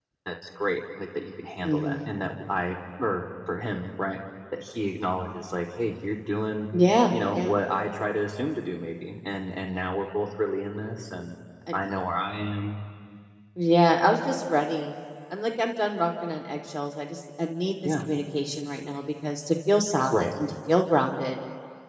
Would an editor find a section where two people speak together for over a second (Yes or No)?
No